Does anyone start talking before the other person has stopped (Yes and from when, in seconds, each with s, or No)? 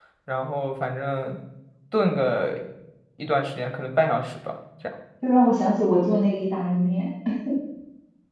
No